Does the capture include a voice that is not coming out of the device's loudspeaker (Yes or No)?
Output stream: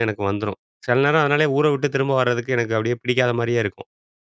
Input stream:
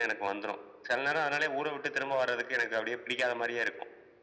No